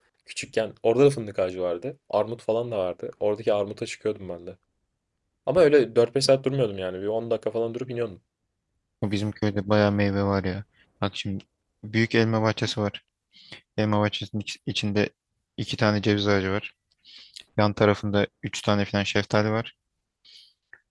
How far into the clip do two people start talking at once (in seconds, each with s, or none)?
none